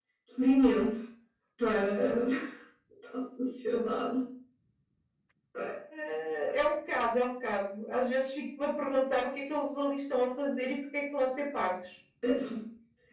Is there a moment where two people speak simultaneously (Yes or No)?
No